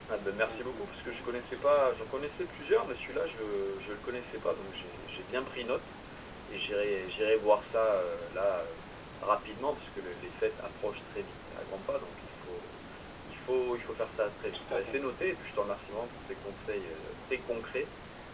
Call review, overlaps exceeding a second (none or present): present